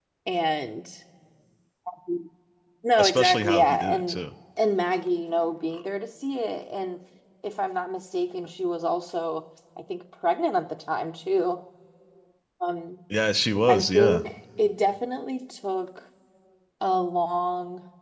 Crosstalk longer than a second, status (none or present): present